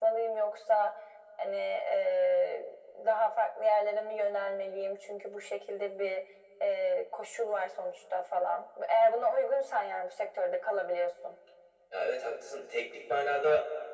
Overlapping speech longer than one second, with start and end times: none

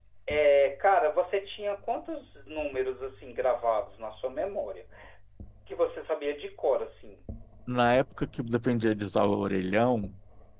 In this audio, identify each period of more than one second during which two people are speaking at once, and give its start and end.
none

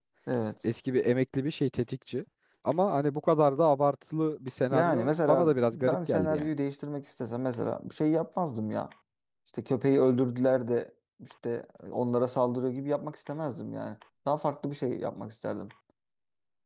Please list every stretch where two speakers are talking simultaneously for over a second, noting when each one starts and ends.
4.7-6.5

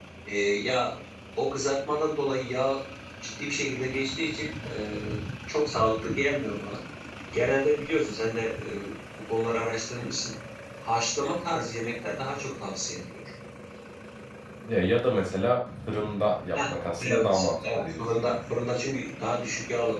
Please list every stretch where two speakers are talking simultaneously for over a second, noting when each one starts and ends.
16.5-18.3

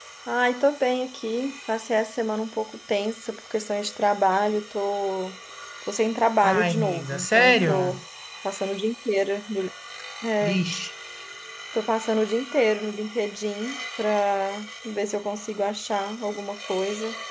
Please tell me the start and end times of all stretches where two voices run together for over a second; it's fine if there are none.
6.4-8.0

